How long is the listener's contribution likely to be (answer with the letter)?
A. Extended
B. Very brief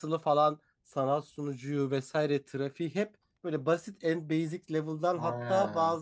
B